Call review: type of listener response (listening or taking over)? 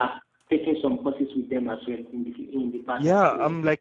taking over